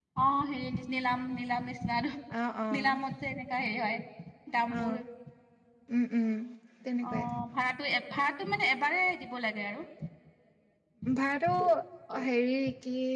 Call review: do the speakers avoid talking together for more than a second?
Yes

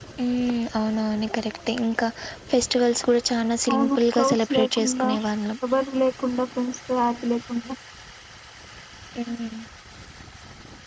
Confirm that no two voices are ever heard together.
No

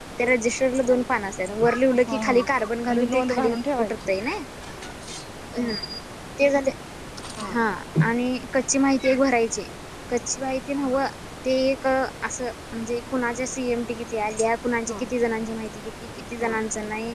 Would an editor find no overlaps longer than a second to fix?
No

